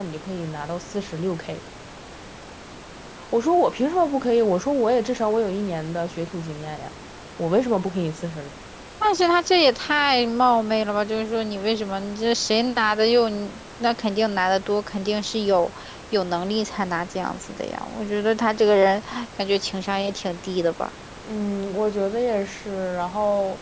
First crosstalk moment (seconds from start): none

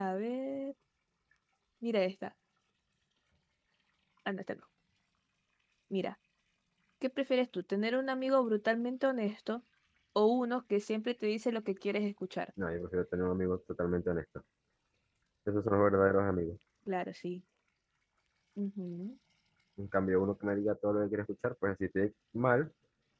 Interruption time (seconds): none

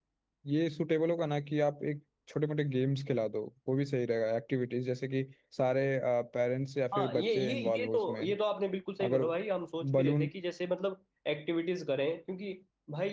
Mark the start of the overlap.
6.9 s

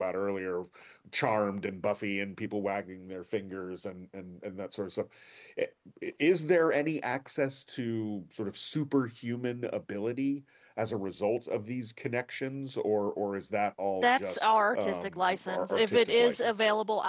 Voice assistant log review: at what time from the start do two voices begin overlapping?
14.0 s

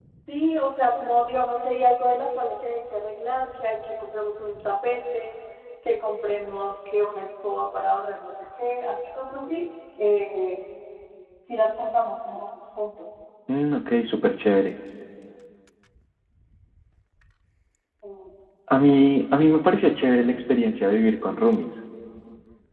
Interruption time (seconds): none

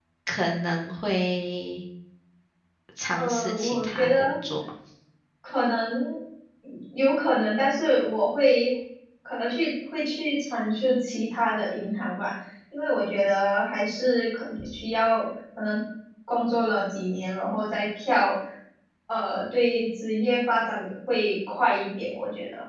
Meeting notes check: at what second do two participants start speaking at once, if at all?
3.1 s

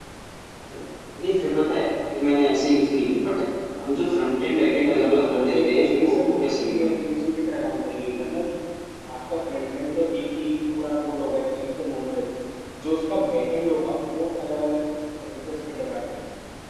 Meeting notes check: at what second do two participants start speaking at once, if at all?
4.8 s

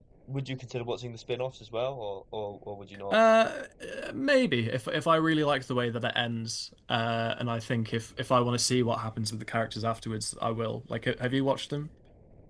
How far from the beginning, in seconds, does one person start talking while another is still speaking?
none

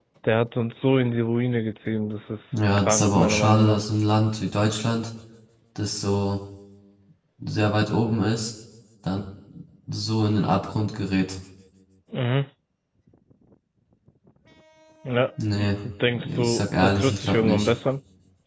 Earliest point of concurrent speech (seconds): 2.5 s

